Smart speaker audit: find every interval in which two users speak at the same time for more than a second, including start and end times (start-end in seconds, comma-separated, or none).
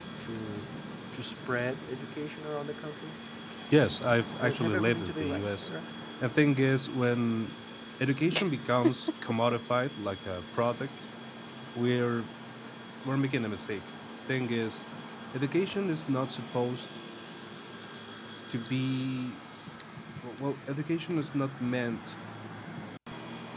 4.4-5.7